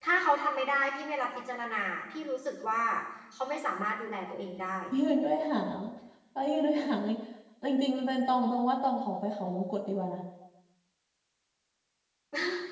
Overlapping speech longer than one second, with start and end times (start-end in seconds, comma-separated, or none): none